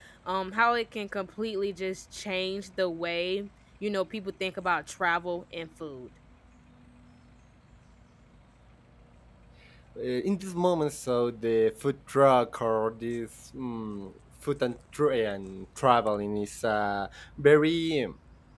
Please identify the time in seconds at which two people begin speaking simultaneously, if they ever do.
none

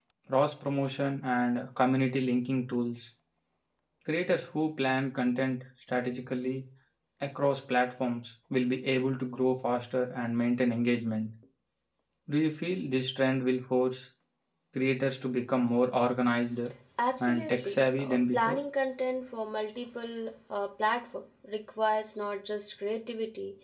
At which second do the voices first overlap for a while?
17 s

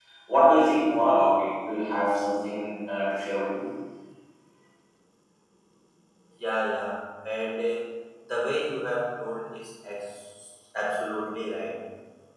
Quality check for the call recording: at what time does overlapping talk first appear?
none

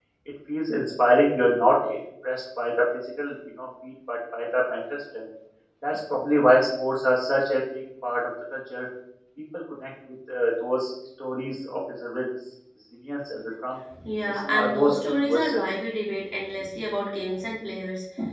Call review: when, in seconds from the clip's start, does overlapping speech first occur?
14 s

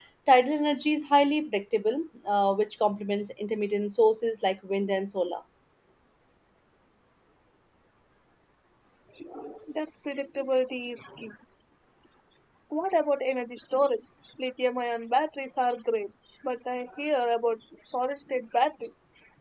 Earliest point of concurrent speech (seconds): none

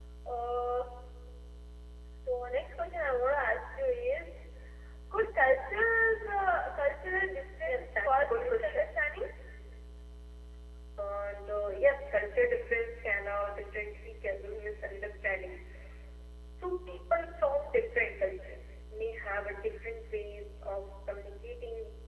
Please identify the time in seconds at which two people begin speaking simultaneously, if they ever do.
8 s

